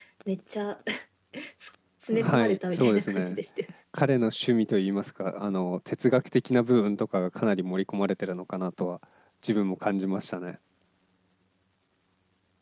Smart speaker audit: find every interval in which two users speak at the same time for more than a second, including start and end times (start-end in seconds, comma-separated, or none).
2.1-3.4